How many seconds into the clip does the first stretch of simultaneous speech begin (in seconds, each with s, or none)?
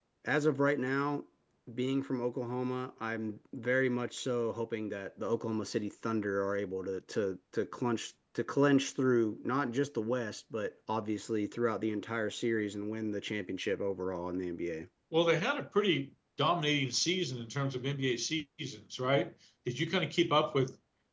none